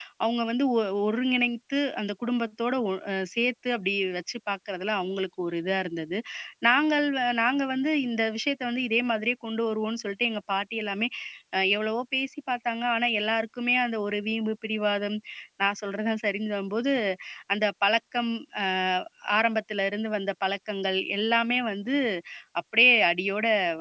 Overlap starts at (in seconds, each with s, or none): none